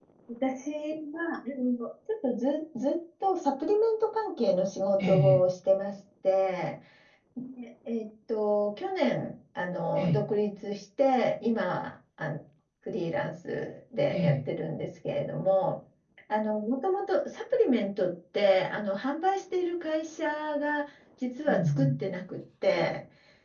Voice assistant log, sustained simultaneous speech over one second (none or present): none